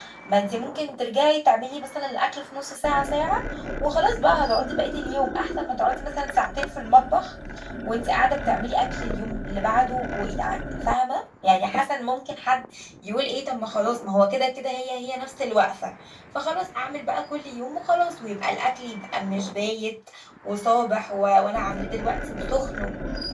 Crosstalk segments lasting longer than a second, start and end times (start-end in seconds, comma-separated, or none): none